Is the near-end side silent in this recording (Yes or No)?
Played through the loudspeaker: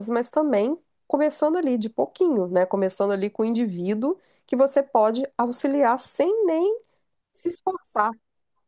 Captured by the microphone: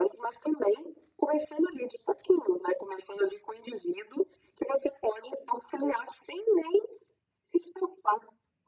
Yes